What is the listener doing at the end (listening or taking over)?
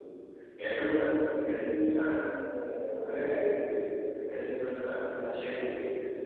listening